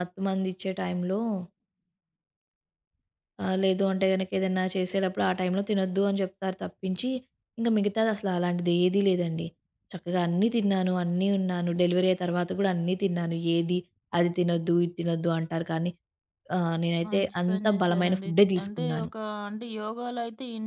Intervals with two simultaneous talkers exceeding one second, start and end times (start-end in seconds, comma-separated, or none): 17.1-19.1